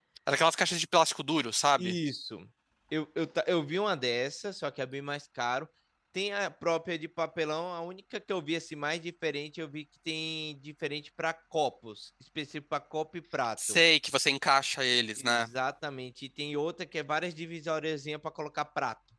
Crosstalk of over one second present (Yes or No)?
No